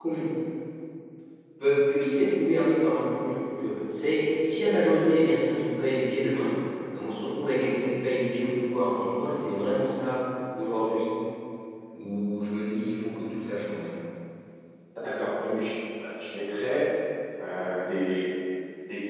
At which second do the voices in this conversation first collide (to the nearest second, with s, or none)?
none